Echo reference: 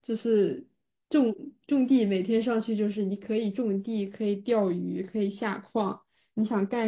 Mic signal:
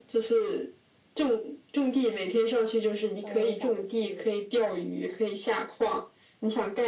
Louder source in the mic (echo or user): echo